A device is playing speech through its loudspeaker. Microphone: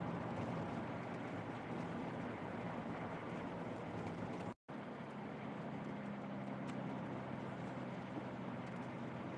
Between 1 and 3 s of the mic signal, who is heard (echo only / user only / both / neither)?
neither